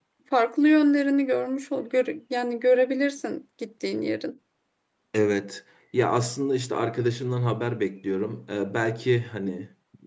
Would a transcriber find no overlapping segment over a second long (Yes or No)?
Yes